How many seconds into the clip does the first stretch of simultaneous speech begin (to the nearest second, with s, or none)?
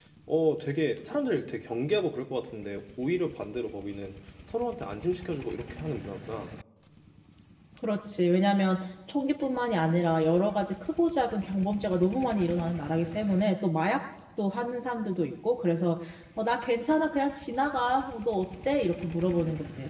none